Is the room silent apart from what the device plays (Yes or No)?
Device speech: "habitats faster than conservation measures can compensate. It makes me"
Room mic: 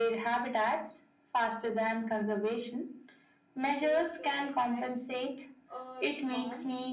No